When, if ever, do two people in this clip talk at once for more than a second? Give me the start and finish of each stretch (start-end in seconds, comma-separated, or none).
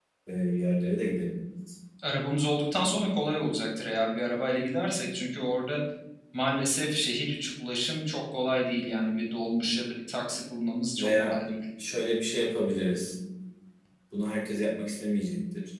none